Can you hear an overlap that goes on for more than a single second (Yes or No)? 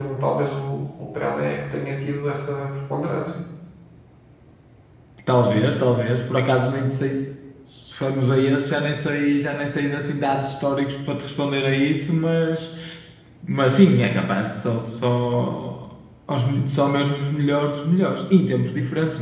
No